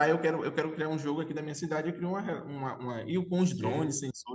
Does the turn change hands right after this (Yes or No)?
No